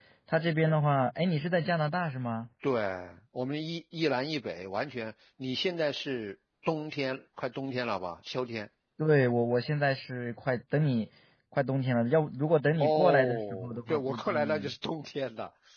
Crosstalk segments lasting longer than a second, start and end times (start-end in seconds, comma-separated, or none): 12.8-14.7